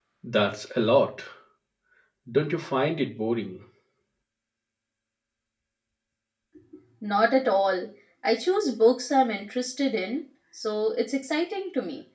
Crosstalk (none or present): none